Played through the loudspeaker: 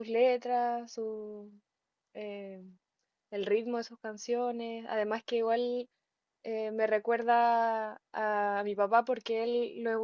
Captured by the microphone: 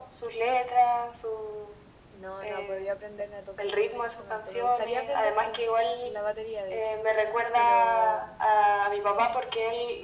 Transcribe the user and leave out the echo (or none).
no, no he podido aprender a tocar ningún instrumento. Me gustaría aprender, sí, eh, la batería de hecho, pero